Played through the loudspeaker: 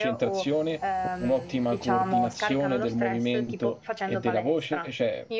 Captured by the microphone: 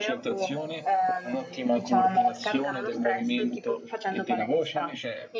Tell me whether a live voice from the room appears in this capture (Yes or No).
No